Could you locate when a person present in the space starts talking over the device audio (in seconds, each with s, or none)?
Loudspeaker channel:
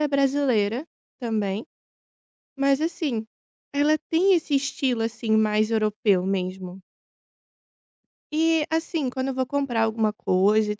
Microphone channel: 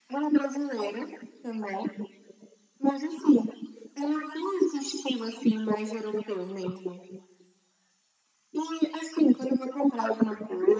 none